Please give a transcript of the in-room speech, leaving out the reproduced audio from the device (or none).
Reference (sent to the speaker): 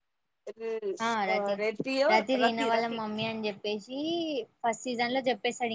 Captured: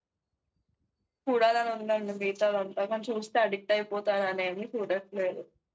చూడాలని ఉండండి మిగతాలు అంతా కాని చూస్తే అడిక్ట్ అయిపోతారునేని చూడట్లేదు